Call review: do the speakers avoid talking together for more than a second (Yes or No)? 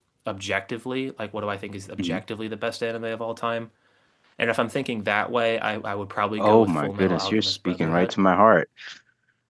No